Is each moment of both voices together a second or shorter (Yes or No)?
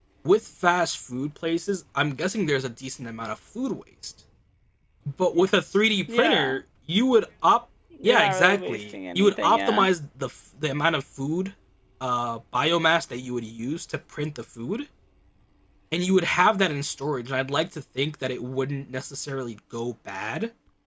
No